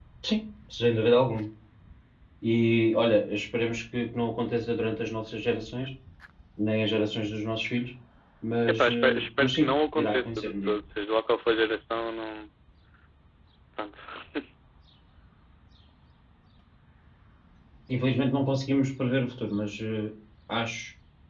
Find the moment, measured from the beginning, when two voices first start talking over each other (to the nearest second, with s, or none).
9 s